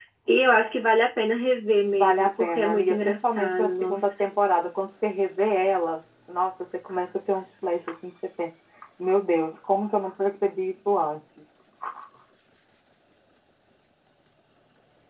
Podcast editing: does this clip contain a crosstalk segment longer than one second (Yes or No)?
Yes